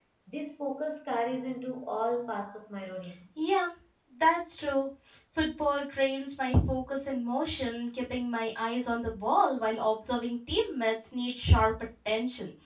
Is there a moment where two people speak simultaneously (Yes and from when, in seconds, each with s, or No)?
No